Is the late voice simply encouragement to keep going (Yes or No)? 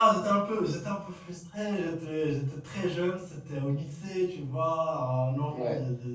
Yes